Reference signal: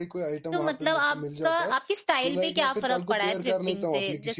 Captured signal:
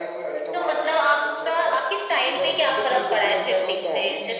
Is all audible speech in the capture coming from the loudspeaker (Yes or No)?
No